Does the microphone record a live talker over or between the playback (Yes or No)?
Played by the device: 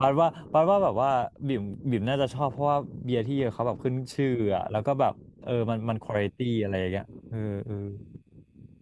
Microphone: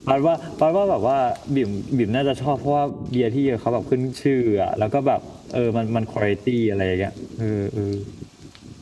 No